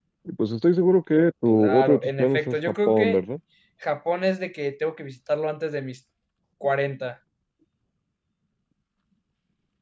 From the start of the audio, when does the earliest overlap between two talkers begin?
1.5 s

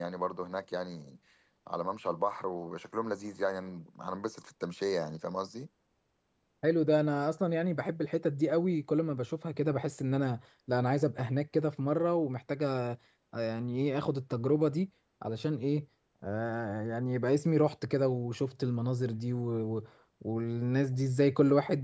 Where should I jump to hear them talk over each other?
none

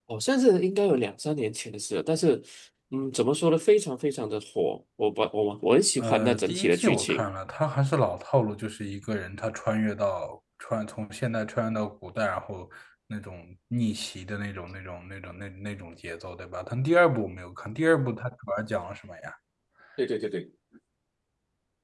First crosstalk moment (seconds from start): 6.0 s

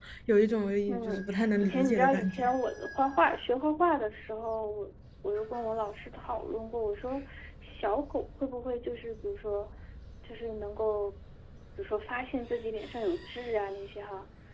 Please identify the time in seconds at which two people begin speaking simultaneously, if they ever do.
0.9 s

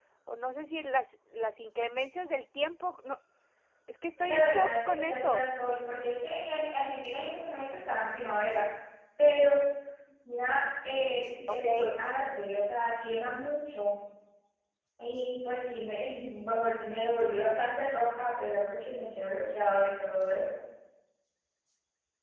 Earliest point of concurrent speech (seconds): 4.2 s

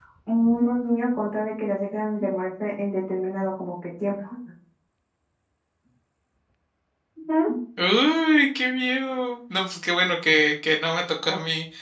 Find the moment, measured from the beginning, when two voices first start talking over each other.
none

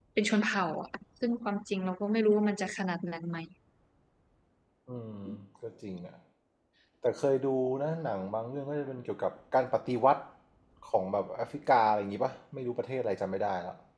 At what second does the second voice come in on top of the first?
none

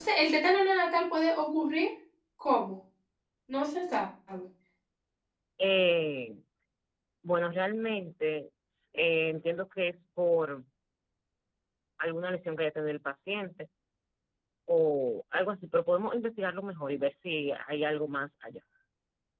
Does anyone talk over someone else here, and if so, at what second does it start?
none

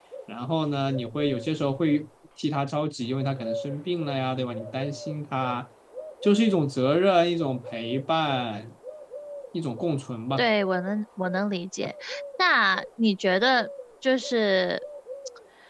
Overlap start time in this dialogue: none

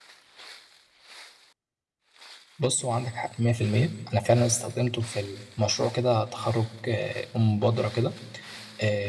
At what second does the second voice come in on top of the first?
none

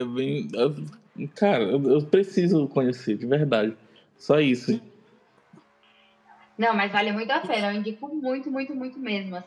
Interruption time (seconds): none

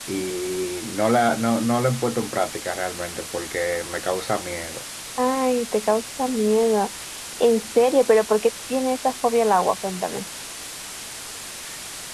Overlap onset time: none

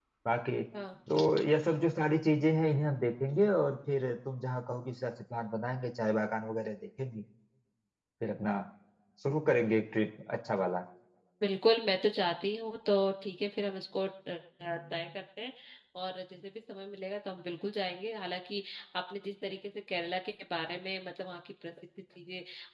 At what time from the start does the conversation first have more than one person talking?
none

